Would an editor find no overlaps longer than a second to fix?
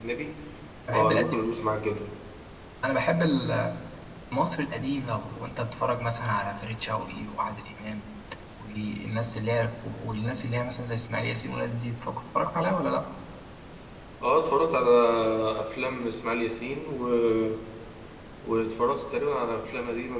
Yes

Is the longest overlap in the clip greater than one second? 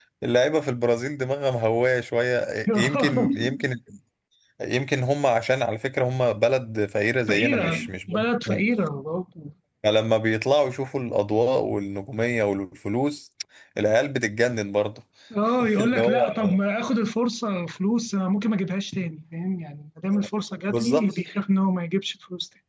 Yes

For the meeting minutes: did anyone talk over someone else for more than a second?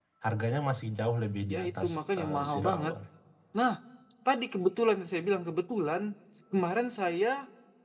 Yes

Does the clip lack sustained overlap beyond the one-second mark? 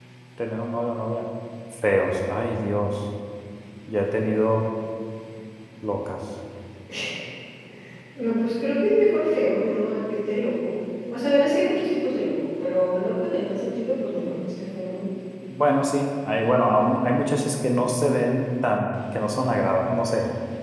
Yes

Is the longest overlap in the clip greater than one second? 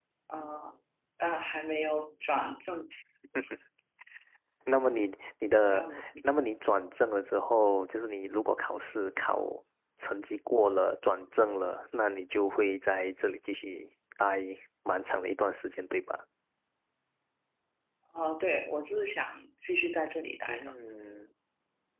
No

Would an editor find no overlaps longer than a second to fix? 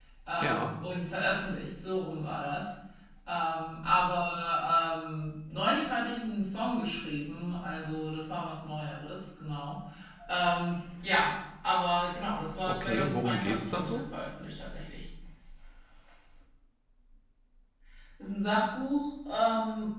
No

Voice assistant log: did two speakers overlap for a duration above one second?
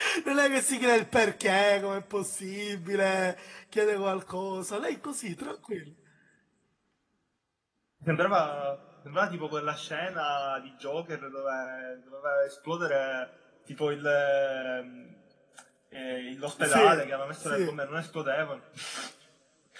No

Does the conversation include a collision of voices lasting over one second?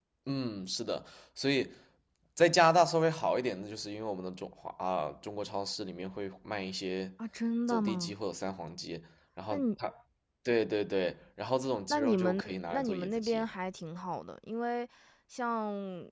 Yes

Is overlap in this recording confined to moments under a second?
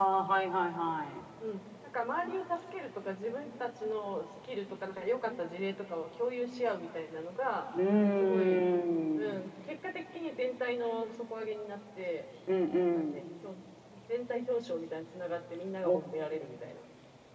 Yes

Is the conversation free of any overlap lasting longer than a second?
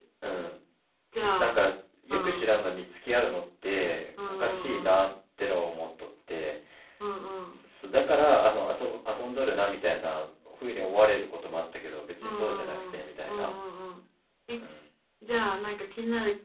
No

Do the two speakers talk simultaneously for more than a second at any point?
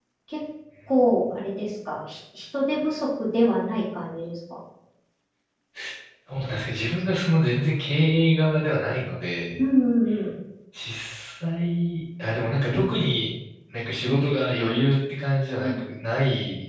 No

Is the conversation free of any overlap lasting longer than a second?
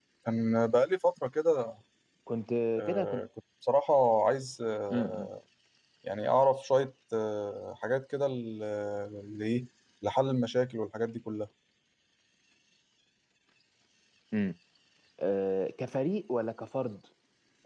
Yes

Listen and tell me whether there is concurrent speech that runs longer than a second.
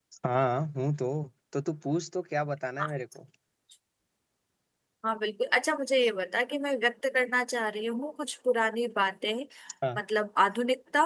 No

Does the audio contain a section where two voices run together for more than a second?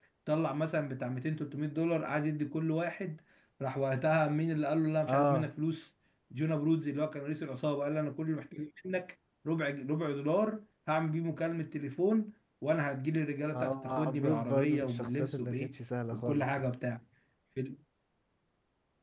Yes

